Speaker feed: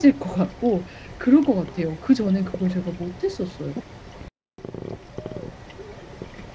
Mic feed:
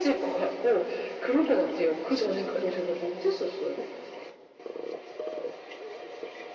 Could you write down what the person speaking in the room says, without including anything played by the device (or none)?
none